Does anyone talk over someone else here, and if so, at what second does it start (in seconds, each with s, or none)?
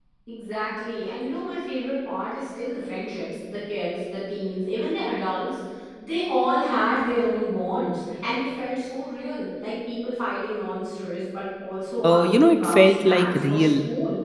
12.0 s